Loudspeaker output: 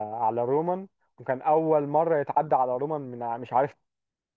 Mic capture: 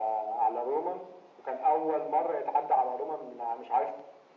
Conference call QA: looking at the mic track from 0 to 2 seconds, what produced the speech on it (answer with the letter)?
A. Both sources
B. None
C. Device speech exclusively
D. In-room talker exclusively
C